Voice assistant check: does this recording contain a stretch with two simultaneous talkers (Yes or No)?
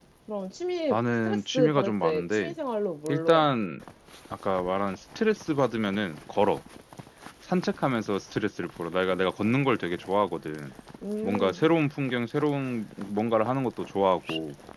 Yes